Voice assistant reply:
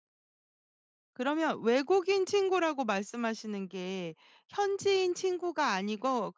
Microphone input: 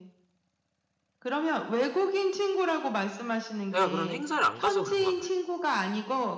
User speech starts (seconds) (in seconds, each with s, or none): 3.7 s